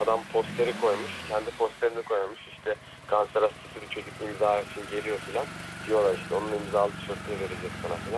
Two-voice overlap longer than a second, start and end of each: none

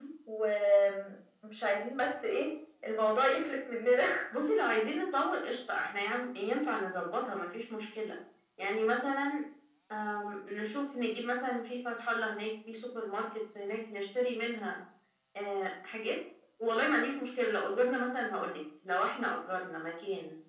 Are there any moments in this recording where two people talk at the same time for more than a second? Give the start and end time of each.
none

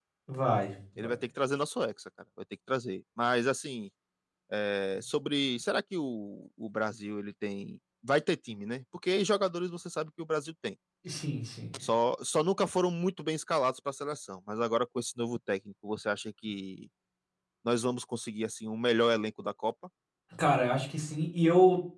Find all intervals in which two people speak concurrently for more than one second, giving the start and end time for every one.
none

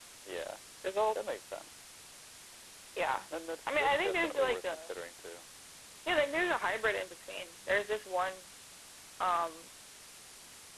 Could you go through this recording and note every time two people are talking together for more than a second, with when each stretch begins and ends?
3.7-4.9

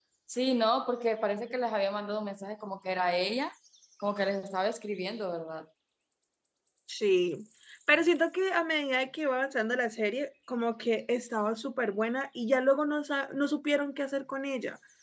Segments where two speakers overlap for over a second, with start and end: none

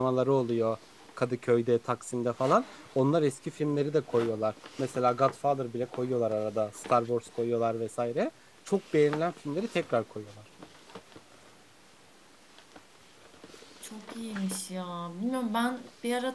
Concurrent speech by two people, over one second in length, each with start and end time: none

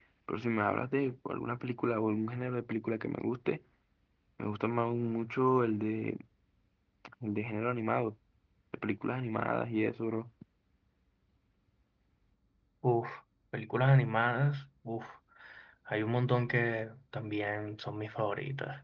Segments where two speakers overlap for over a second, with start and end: none

